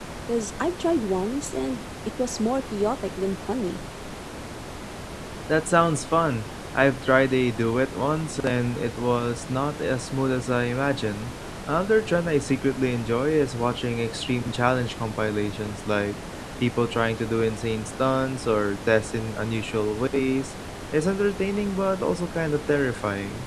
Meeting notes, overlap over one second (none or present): none